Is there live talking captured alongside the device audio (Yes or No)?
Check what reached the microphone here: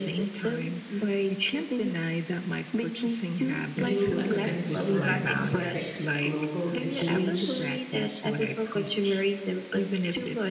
Yes